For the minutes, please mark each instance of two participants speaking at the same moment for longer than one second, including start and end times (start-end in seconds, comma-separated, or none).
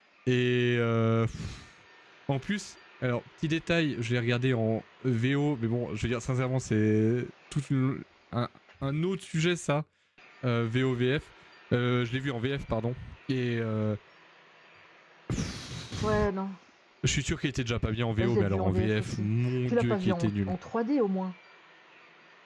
18.2-20.5